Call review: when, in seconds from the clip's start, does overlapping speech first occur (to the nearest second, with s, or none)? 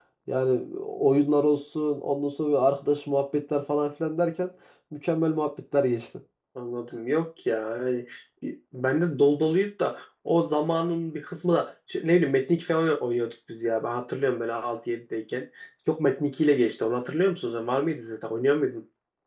none